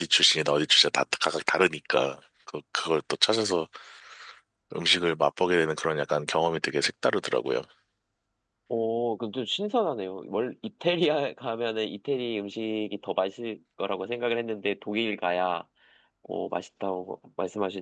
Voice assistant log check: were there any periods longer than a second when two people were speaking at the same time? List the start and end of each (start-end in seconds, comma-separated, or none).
none